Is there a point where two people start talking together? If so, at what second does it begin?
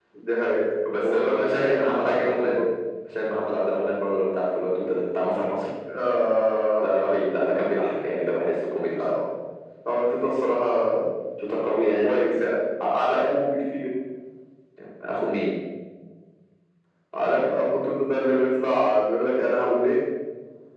1 s

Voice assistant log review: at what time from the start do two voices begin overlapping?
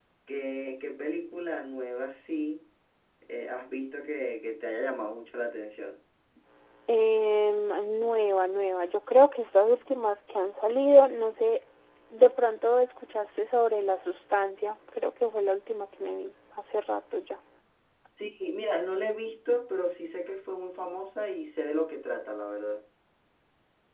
none

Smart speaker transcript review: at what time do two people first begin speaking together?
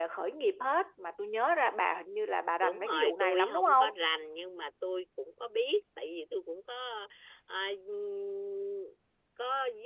3 s

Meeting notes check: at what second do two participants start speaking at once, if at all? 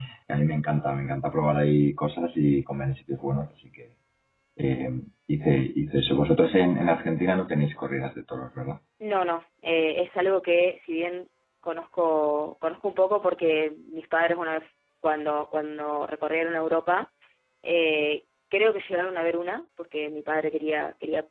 none

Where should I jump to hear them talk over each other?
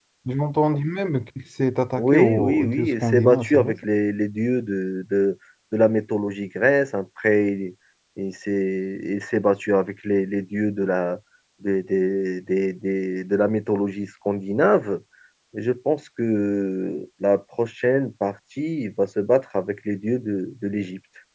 2 s

